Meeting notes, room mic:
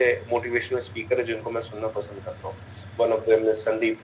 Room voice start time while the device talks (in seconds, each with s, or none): none